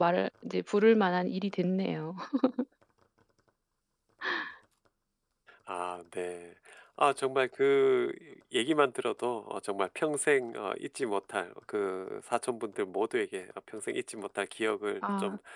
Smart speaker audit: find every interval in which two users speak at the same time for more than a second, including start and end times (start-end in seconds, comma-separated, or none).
none